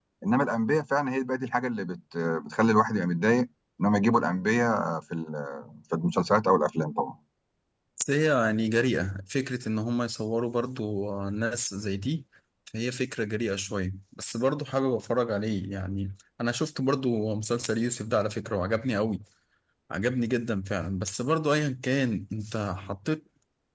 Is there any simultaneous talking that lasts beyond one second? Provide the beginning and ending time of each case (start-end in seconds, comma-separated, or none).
none